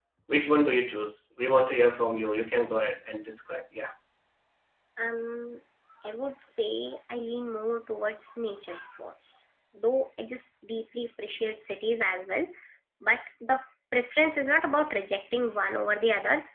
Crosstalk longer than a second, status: none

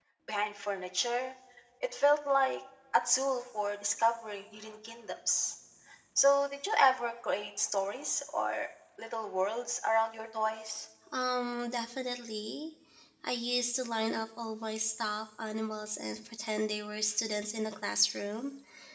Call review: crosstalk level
none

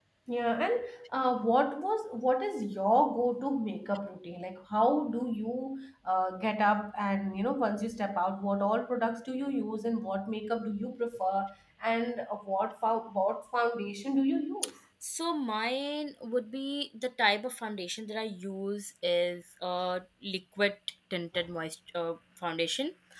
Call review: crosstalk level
none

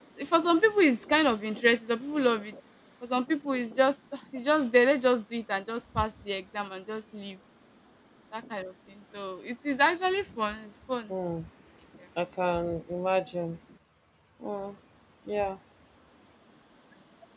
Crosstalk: none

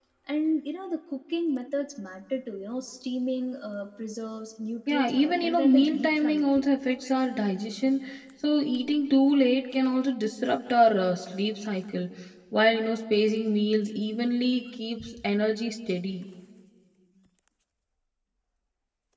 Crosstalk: present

